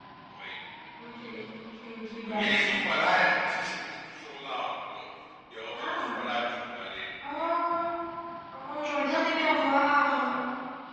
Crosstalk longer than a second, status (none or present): none